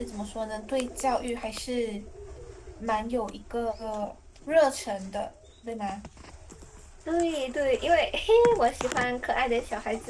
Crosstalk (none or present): none